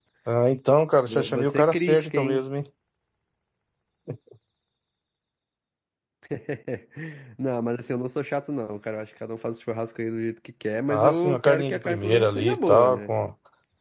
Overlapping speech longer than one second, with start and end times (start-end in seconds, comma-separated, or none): 1.1-2.4, 10.9-13.1